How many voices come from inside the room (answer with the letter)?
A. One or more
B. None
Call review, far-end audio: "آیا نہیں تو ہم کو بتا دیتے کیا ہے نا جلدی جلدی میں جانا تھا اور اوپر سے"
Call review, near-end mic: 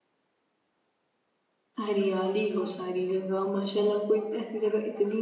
A